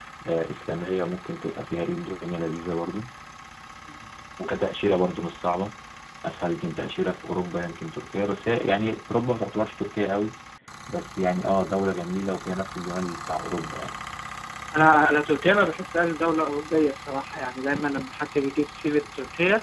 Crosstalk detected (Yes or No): No